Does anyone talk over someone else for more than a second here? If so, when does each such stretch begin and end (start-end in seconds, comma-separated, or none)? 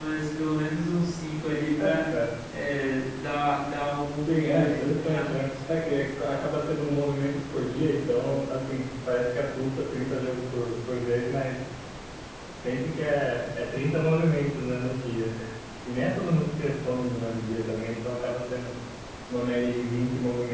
4.3-5.5